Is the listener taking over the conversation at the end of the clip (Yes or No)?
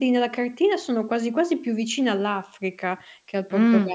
Yes